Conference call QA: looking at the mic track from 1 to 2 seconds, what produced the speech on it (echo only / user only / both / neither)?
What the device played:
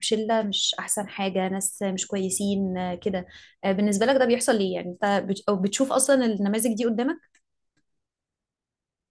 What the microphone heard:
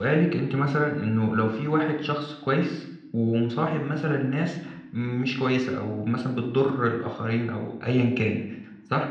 user only